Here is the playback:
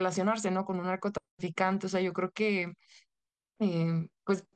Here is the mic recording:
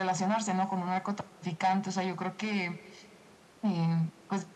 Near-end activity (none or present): none